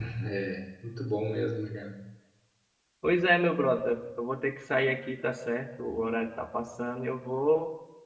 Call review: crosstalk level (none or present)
none